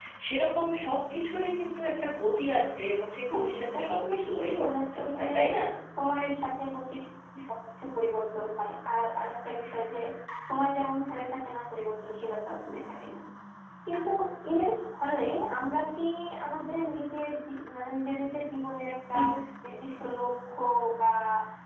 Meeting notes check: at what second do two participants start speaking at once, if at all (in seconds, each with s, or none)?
3.3 s